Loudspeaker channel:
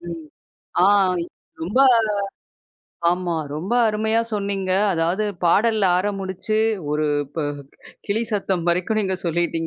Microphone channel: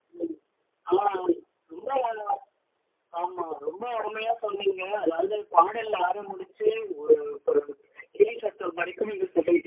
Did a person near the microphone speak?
No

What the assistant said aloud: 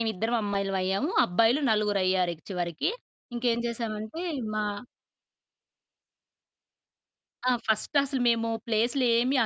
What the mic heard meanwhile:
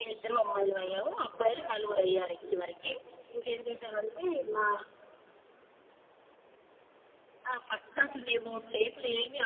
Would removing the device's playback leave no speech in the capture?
Yes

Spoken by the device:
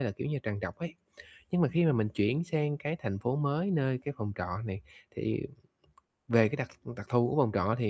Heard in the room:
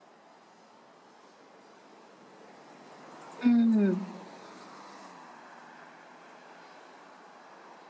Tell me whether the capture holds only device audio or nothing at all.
No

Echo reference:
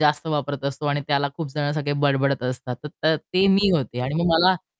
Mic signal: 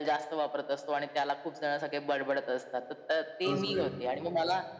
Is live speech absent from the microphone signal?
No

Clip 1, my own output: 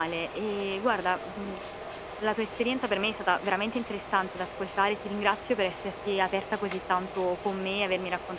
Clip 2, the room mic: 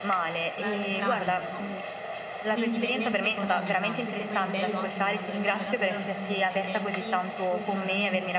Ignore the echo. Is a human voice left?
Yes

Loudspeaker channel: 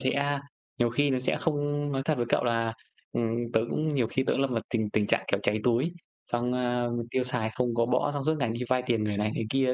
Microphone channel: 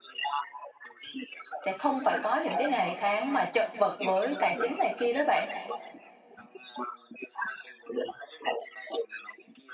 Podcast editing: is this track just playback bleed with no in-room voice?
No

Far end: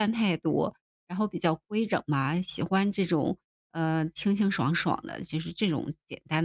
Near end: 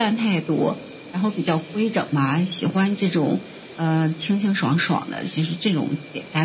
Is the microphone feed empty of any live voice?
Yes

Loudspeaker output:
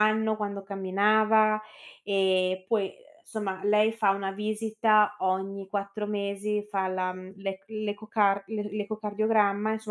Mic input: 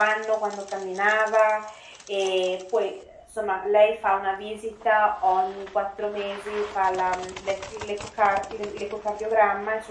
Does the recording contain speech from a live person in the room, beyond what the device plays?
No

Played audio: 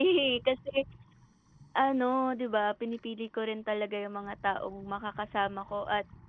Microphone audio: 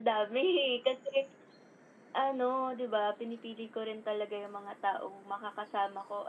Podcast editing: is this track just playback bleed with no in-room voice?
Yes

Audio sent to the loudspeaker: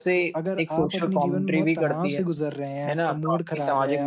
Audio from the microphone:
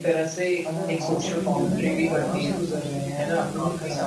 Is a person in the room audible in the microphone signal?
Yes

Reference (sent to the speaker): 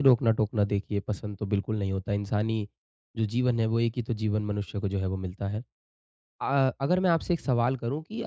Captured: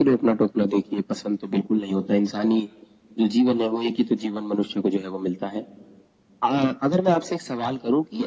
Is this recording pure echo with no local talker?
Yes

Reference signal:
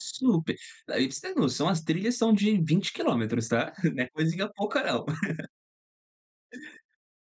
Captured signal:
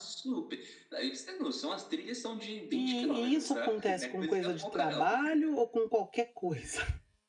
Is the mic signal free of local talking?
No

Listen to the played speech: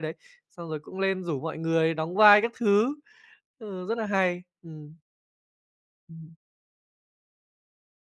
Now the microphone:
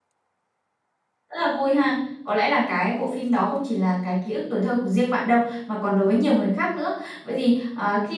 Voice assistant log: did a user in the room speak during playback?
Yes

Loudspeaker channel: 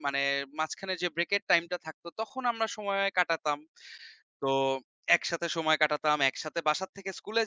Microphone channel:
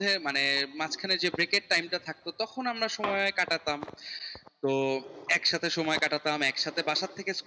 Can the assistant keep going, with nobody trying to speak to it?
Yes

